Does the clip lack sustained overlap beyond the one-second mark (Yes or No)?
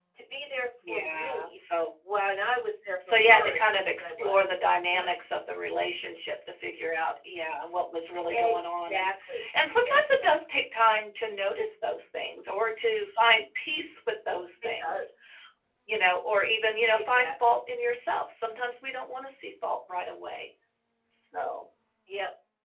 No